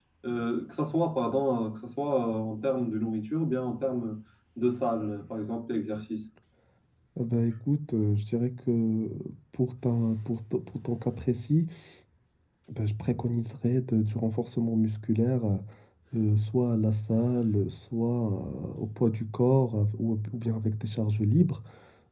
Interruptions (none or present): none